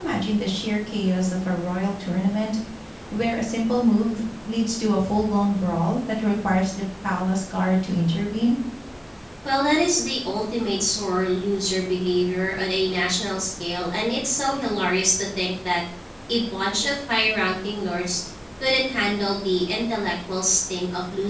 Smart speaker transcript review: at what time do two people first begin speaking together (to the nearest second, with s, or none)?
none